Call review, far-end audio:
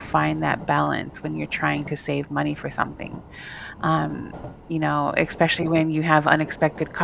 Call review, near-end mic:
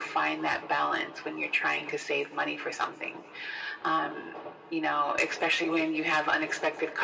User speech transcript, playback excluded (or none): none